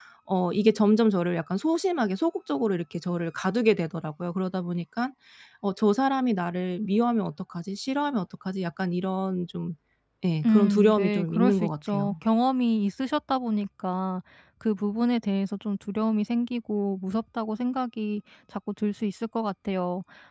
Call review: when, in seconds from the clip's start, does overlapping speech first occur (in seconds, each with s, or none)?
10.4 s